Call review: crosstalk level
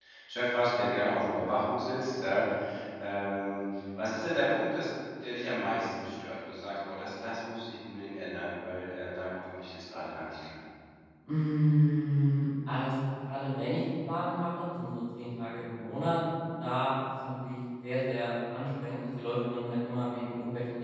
none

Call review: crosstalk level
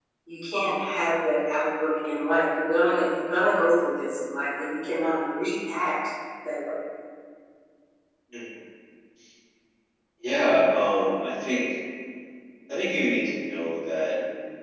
none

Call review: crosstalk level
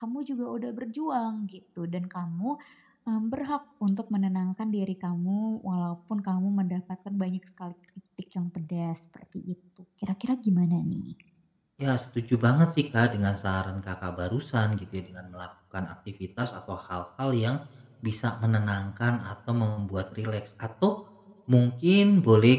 none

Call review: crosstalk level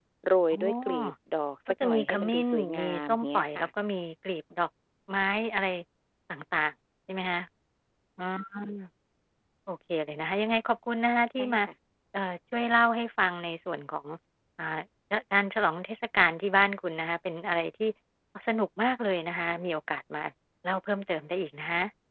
present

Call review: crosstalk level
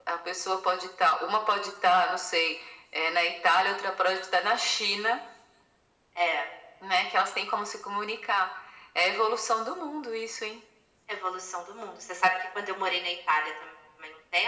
none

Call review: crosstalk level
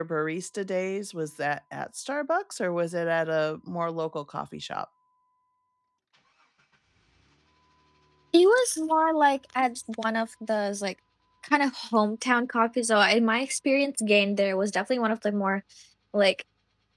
none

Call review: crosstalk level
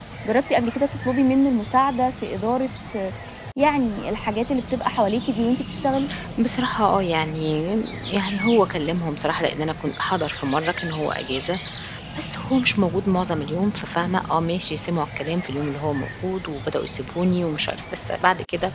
none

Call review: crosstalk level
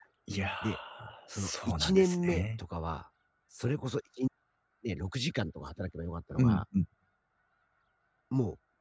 present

